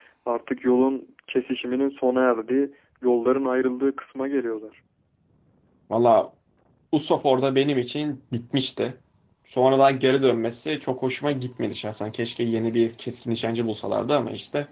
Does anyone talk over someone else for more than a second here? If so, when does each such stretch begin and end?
none

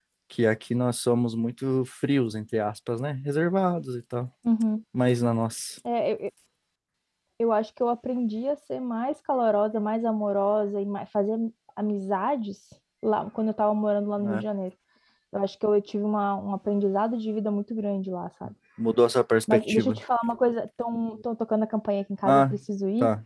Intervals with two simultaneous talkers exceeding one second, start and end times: none

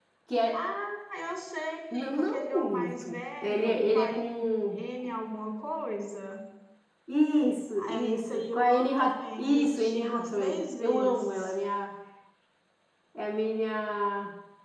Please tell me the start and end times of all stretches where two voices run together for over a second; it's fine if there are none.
1.9-4.8, 7.8-11.5

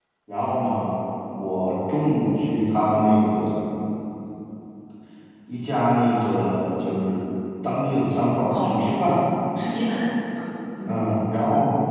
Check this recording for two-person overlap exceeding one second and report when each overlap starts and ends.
none

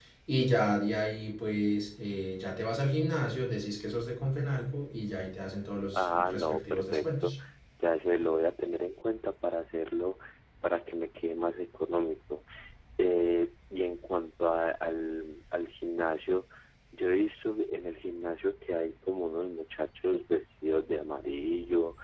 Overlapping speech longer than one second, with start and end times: 5.9-7.3

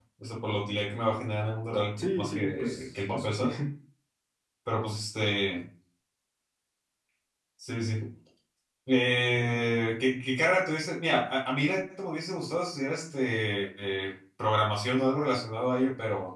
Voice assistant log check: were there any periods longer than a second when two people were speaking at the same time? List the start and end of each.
2.0-3.4

